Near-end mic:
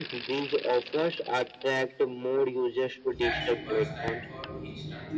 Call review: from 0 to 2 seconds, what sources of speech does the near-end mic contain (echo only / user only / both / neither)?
echo only